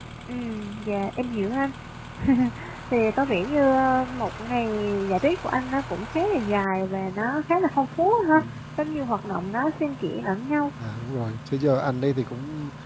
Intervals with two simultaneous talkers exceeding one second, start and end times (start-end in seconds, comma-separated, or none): none